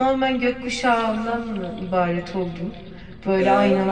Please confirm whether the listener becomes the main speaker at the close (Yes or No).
No